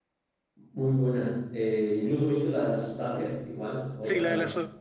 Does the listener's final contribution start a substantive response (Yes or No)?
Yes